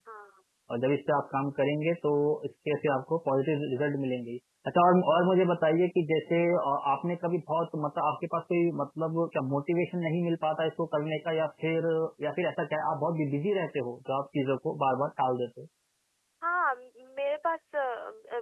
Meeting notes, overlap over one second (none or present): none